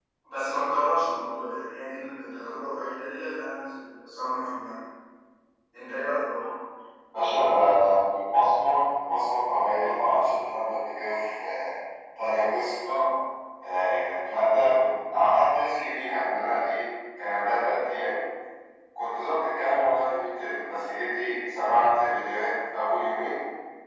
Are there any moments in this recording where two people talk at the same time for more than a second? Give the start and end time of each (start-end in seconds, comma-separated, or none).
none